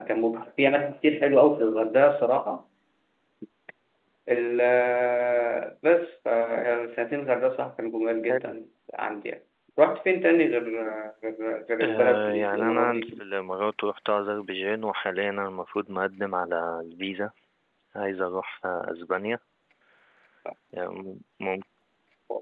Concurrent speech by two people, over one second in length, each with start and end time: 11.8-13.1

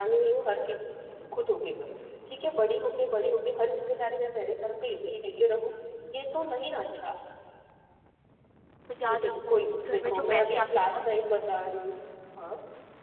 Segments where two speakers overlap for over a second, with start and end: 9.1-11.1

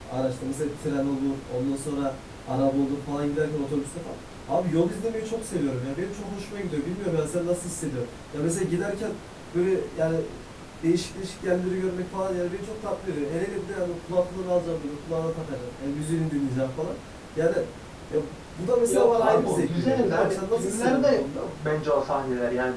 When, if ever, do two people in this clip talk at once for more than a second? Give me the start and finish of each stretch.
18.9-21.4

